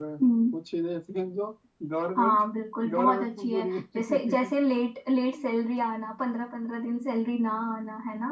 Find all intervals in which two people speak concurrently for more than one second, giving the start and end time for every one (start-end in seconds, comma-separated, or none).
2.9-4.5